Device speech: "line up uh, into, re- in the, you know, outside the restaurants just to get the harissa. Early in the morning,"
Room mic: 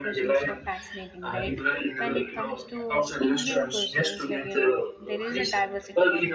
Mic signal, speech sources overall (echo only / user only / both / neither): both